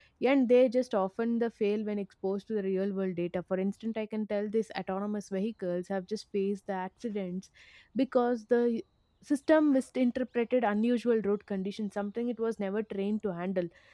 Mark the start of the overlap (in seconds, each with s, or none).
none